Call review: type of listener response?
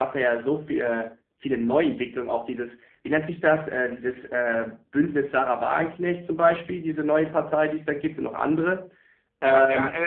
taking over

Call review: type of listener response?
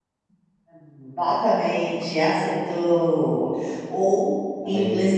listening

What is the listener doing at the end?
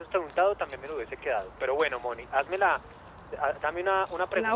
listening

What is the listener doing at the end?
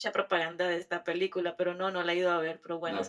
taking over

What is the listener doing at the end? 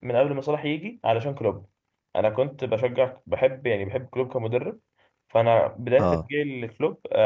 listening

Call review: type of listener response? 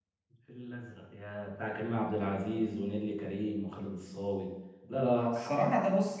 taking over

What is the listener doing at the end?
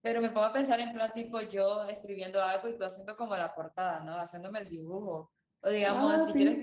listening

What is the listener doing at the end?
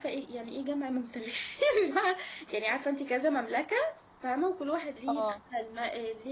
listening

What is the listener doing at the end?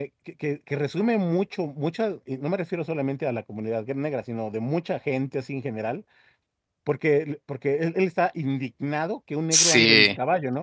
listening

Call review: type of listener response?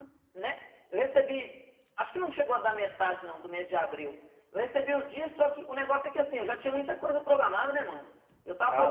taking over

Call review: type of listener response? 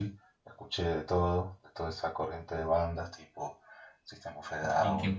listening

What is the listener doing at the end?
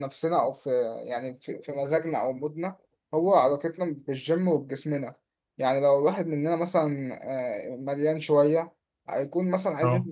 listening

